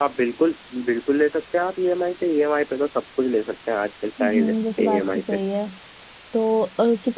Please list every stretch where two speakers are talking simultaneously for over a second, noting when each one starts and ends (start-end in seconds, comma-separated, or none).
4.2-5.4